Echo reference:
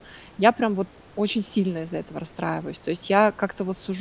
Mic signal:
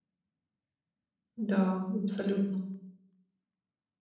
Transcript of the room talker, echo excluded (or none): Да, абсолютно.